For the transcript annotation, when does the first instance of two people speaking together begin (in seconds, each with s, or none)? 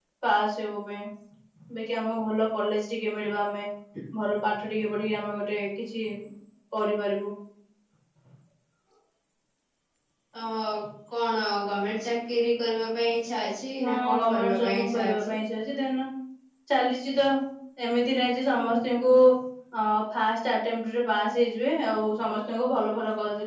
13.8 s